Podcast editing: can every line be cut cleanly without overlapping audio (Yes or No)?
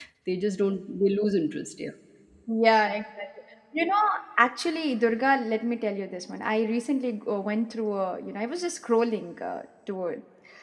Yes